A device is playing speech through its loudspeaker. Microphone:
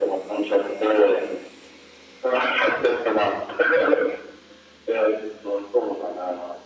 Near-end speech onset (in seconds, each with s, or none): none